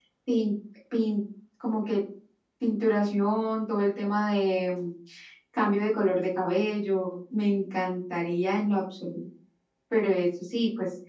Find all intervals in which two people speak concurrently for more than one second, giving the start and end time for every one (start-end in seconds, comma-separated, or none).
none